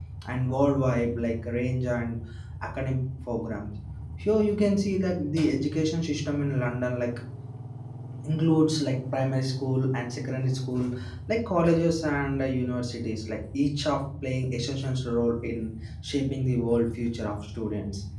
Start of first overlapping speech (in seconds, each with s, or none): none